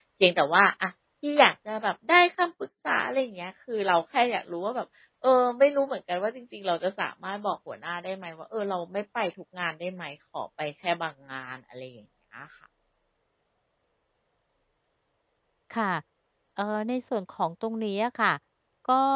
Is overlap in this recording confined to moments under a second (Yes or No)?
Yes